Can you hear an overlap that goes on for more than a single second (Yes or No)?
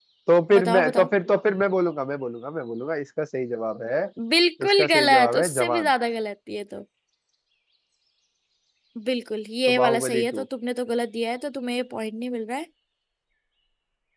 Yes